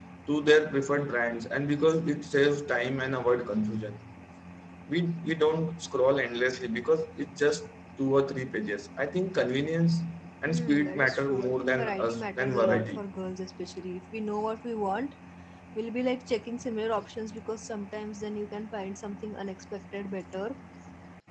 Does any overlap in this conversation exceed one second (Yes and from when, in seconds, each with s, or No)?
Yes, from 10.5 s